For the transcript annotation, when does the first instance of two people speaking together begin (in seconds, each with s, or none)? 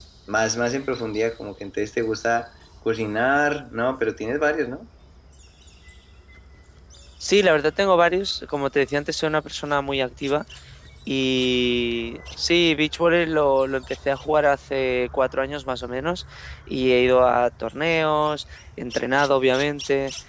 none